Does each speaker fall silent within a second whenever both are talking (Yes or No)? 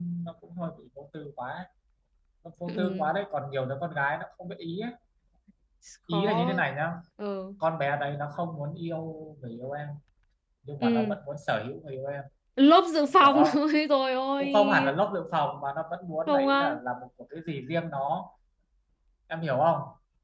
Yes